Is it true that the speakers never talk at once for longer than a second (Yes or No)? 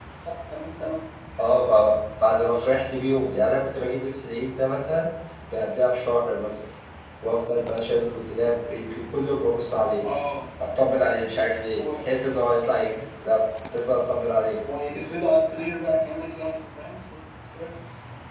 Yes